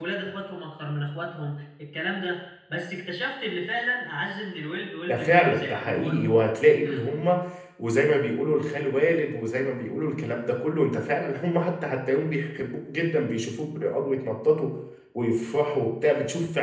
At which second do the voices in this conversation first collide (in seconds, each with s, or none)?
5.1 s